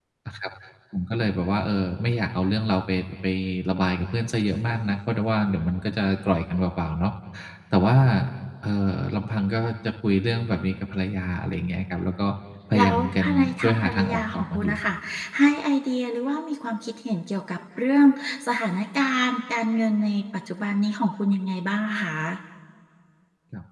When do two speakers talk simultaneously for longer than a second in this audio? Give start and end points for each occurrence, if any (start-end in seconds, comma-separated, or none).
12.8-14.8